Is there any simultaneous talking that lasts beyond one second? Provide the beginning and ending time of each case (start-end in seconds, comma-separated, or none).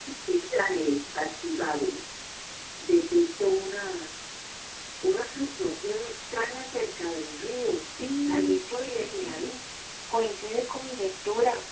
8.2-9.5